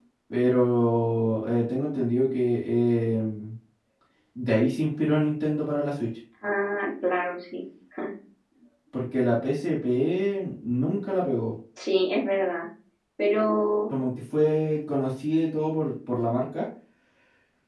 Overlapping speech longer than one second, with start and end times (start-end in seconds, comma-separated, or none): none